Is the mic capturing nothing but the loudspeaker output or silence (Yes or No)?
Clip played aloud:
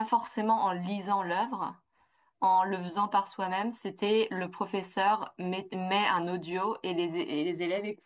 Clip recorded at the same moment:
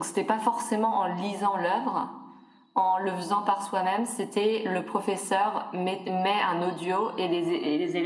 Yes